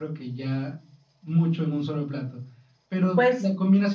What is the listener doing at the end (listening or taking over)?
listening